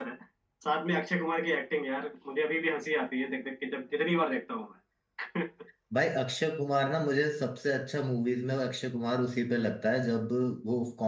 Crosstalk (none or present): none